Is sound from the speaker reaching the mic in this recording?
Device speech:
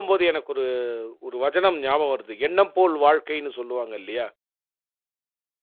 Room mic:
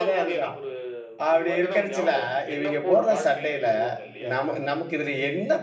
Yes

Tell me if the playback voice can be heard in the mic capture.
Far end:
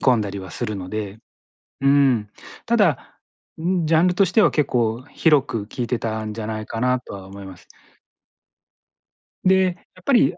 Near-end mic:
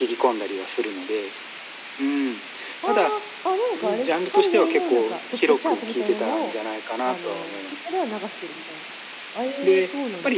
Yes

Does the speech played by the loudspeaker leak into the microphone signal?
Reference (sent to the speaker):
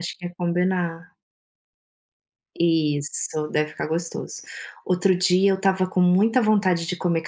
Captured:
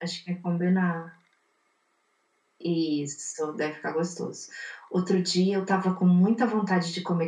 Yes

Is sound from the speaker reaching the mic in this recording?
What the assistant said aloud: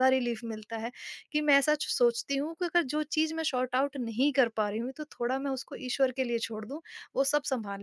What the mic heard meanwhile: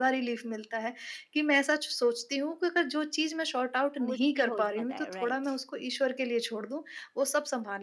Yes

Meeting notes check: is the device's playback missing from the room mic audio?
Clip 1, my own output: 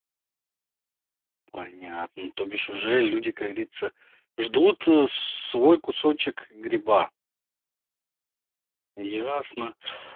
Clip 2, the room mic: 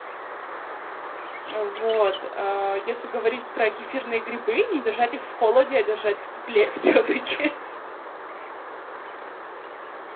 Yes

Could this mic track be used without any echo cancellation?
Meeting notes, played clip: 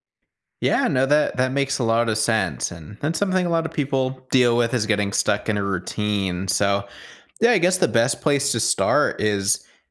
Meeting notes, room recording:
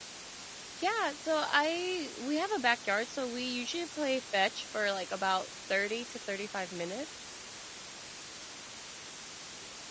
Yes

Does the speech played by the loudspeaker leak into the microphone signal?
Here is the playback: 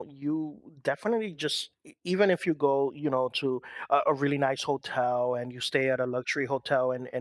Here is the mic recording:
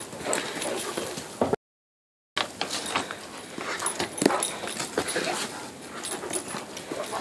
No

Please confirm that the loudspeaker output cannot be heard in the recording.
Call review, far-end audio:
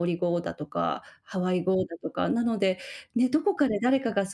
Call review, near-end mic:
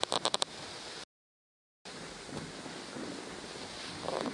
Yes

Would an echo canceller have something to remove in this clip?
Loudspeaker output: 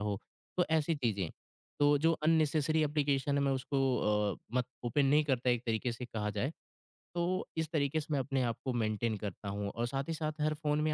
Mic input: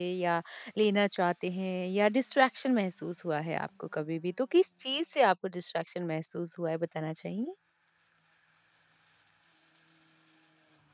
No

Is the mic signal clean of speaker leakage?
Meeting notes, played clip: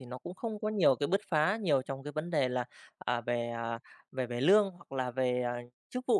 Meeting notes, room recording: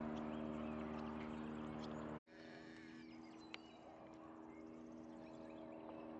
Yes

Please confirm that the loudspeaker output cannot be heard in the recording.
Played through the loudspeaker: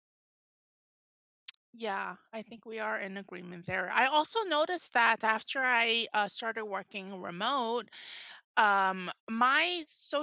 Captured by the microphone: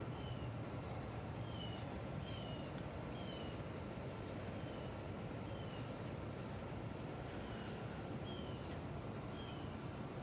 Yes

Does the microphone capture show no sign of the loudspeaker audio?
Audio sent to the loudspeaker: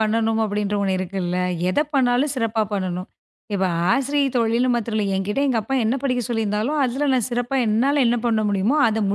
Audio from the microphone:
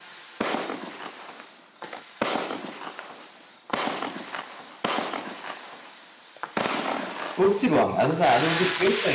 Yes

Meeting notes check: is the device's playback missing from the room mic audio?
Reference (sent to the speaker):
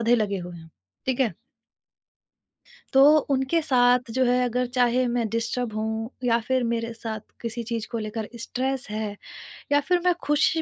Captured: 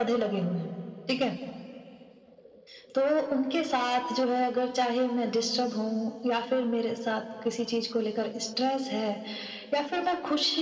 No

